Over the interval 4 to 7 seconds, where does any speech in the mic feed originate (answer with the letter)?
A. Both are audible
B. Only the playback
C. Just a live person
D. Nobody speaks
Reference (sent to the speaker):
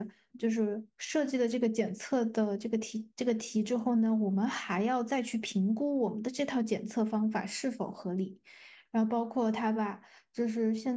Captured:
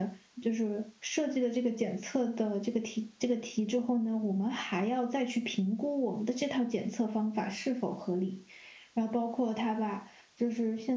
B